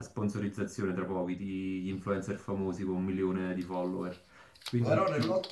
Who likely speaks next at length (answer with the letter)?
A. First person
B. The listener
B